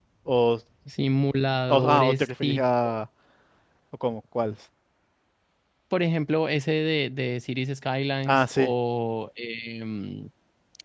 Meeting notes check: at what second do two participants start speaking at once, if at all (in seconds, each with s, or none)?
1.7 s